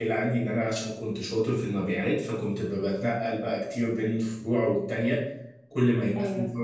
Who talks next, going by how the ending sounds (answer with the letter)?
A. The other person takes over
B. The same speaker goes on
B